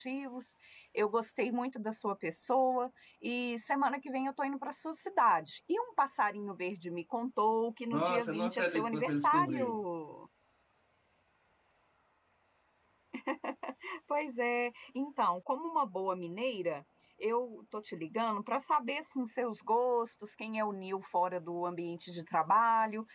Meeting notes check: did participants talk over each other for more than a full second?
Yes, from 7.9 s

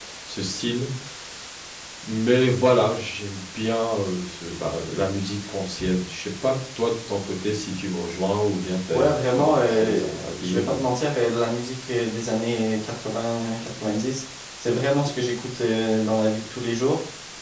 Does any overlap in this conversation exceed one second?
Yes, from 8.9 s

